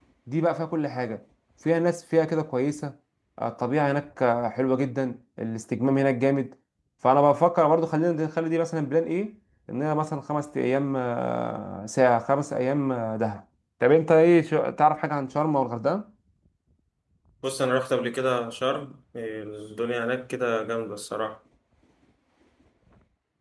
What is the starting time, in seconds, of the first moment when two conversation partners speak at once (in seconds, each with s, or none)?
none